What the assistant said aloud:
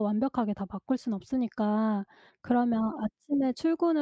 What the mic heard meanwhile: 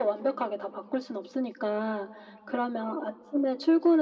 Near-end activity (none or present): none